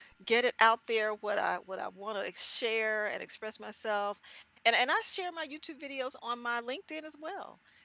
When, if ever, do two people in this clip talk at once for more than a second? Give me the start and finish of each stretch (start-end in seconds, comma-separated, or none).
none